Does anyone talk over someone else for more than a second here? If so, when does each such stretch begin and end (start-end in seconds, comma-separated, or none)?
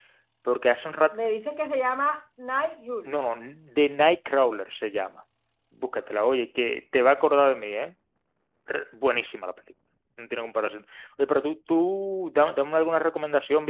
none